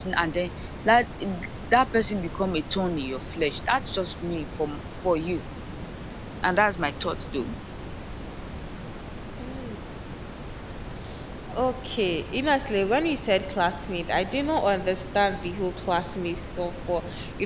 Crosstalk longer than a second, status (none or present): none